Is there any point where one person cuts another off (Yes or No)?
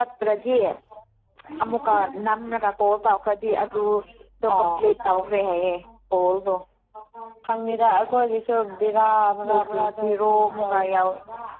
Yes